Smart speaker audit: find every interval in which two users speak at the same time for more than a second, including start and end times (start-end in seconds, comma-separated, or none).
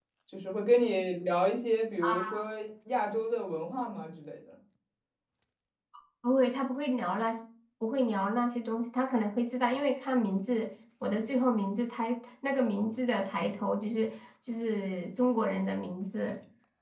none